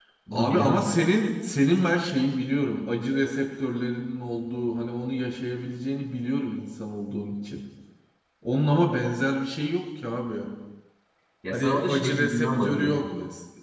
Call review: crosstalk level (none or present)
present